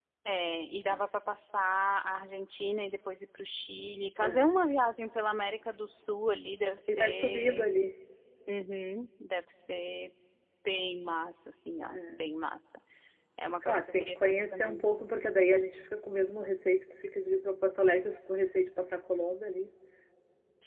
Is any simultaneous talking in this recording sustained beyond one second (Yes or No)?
Yes